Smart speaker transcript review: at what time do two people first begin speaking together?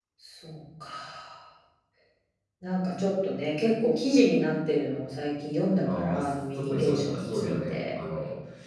6 s

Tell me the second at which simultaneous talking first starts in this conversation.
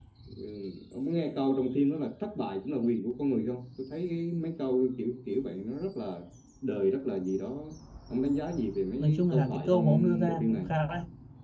9 s

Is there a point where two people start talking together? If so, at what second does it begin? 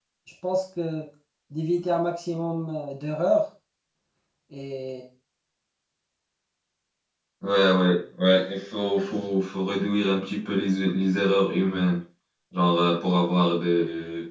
none

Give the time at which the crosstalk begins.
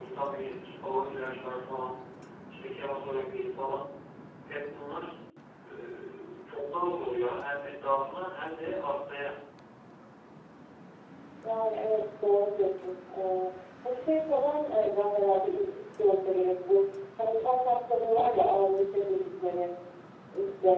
none

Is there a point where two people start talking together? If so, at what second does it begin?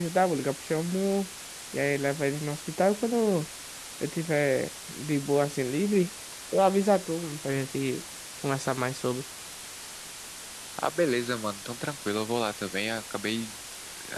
none

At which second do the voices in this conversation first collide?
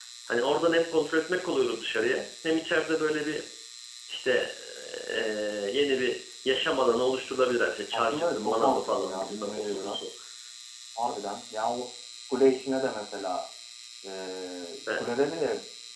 8 s

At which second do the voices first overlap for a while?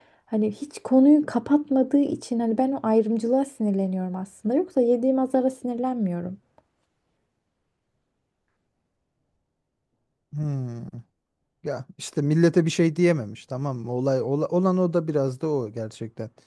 none

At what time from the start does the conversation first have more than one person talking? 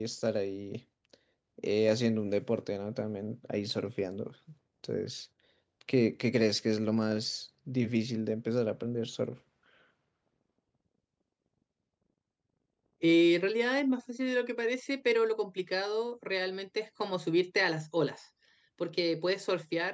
none

